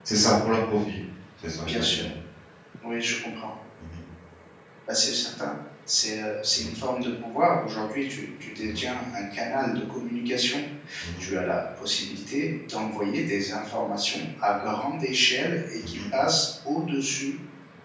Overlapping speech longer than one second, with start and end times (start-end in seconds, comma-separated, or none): none